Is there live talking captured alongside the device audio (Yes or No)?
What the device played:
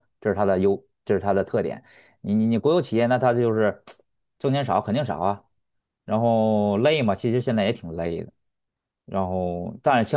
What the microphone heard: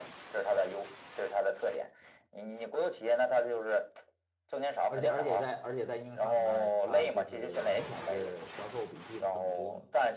Yes